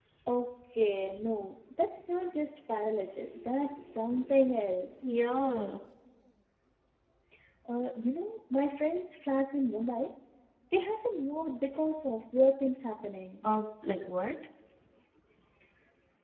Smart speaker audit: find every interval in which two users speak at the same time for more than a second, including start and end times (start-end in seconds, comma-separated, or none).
none